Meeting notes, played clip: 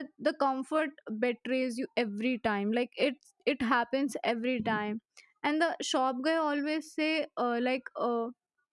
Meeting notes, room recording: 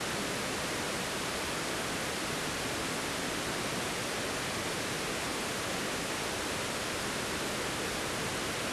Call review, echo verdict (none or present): none